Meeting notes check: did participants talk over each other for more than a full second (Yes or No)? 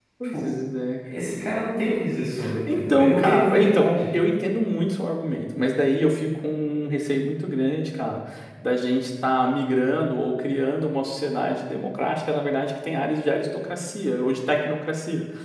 Yes